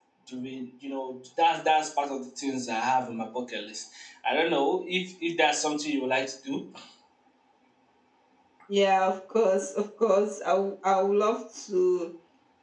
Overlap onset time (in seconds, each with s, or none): none